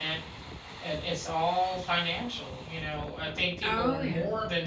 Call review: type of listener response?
listening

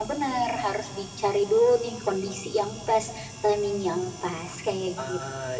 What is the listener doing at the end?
taking over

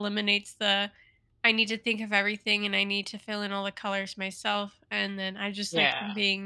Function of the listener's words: listening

